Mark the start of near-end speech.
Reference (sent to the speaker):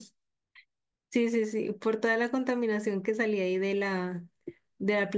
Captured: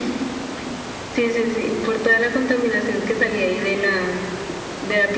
none

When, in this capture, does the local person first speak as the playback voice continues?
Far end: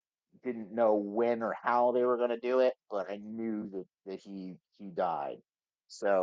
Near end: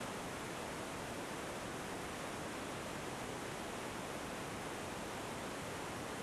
none

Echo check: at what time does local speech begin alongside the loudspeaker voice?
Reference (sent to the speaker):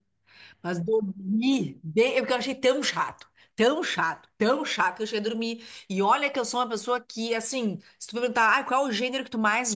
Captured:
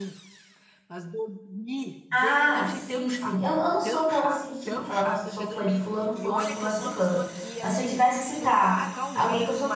2.1 s

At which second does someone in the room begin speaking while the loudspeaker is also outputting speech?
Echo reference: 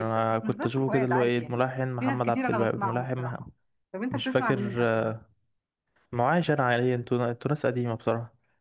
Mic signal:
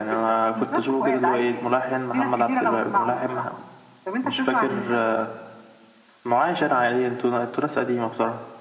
none

